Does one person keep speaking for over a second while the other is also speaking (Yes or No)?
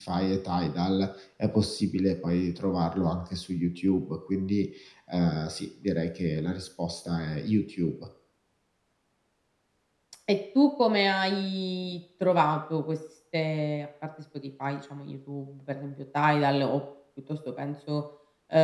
No